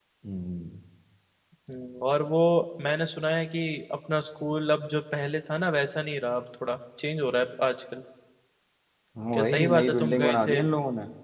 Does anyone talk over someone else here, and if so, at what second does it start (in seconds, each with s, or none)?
9.3 s